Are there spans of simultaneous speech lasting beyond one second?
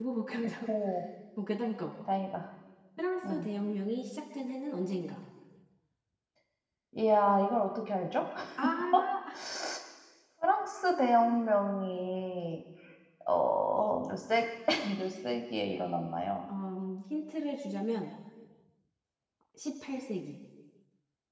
No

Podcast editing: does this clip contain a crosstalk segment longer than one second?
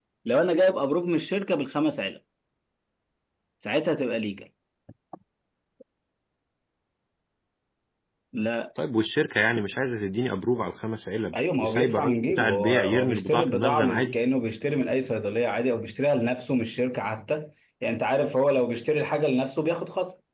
Yes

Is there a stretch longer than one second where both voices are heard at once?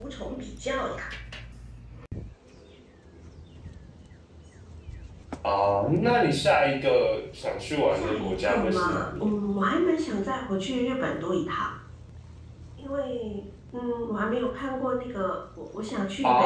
Yes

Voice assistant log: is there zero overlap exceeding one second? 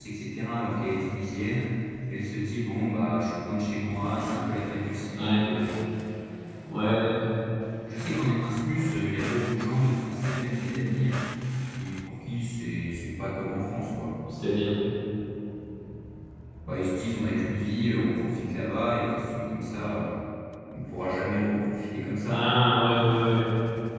Yes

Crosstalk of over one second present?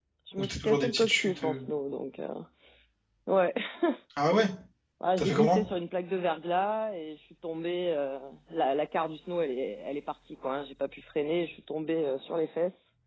Yes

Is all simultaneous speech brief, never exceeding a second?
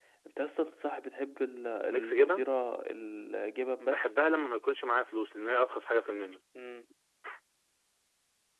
Yes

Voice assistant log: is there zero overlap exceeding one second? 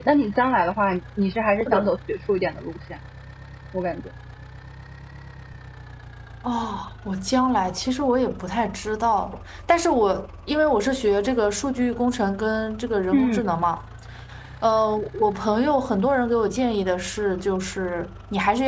Yes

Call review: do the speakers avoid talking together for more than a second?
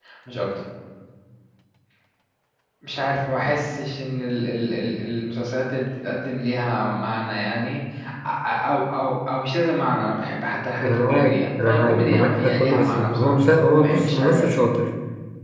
No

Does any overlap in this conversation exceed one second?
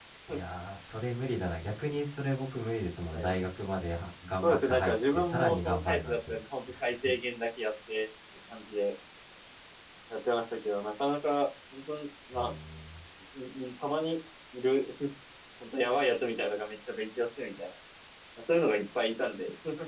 Yes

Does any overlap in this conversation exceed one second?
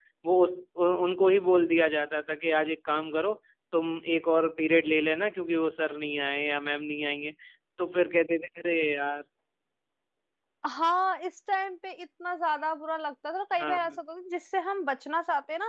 No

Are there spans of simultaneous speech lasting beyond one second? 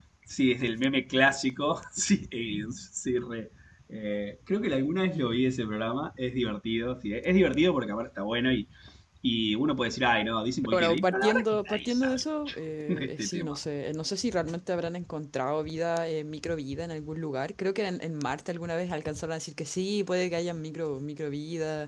Yes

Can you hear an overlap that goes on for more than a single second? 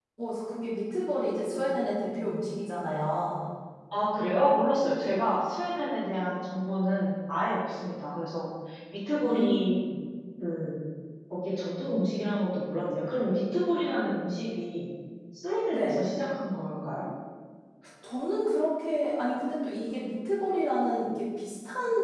No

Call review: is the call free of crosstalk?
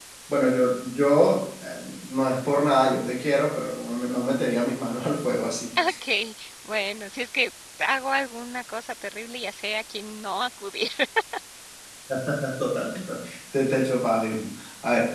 Yes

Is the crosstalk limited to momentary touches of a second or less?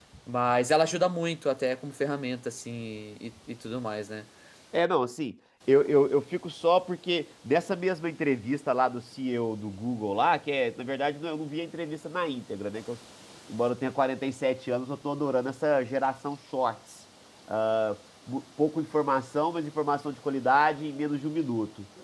Yes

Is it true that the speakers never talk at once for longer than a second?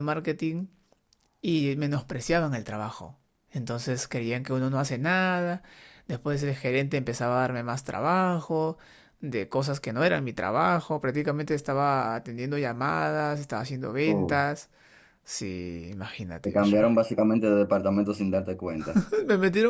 Yes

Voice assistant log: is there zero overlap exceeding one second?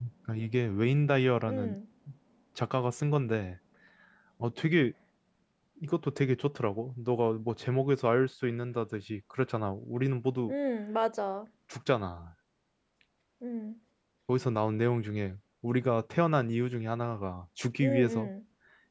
Yes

